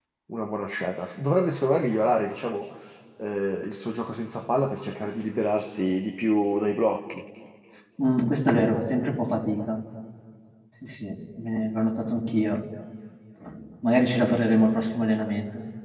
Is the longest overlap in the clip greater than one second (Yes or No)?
No